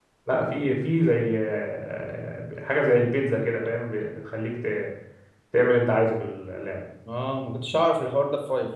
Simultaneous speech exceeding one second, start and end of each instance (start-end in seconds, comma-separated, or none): none